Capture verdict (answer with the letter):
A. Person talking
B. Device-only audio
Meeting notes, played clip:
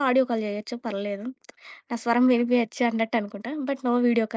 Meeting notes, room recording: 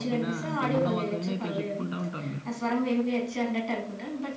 A